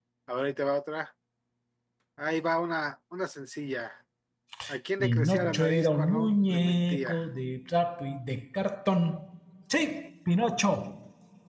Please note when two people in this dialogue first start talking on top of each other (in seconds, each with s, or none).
5.0 s